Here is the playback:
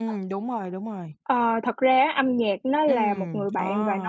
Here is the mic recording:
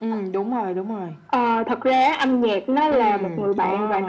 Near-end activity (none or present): none